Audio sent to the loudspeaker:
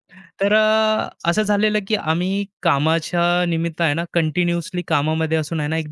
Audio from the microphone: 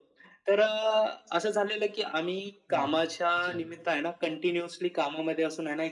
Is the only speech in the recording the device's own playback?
No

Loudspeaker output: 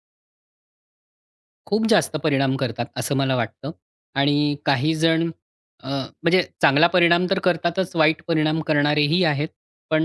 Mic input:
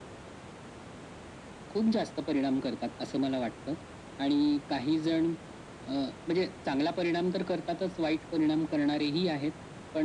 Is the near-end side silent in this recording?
Yes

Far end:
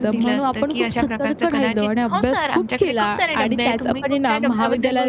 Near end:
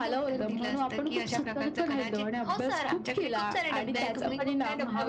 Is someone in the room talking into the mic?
Yes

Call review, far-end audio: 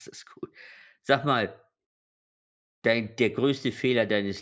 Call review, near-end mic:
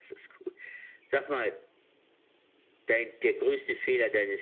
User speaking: No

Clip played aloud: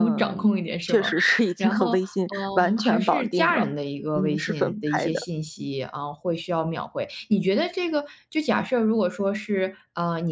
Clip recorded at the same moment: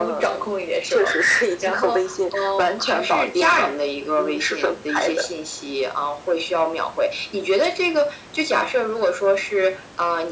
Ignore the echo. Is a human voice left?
No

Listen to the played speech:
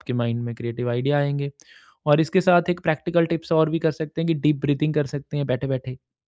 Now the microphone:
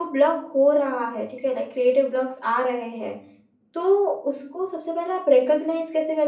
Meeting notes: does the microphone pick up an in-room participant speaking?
Yes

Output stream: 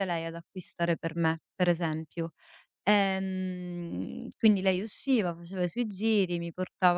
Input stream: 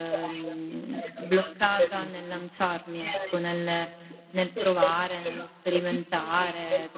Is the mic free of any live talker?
No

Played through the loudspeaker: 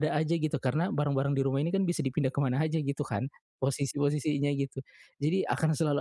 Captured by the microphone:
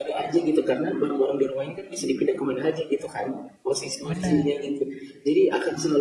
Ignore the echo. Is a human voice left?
Yes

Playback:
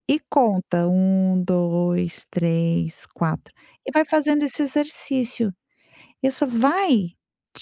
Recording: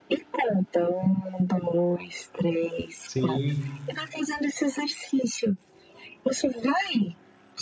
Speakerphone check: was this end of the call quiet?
No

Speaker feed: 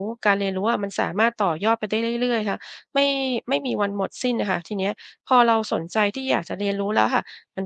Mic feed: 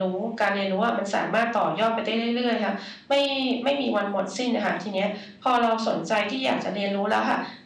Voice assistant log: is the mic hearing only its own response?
Yes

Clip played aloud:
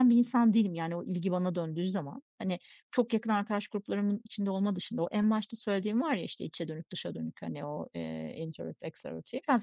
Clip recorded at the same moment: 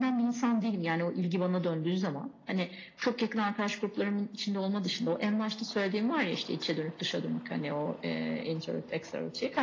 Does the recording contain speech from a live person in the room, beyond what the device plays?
No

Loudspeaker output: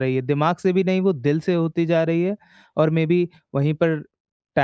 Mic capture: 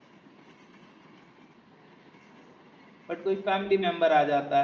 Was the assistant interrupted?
Yes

